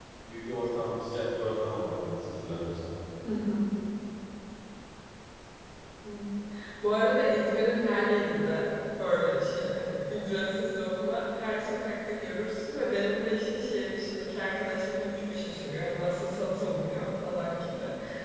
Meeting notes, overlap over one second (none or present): none